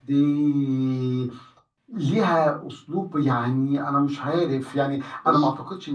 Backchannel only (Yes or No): Yes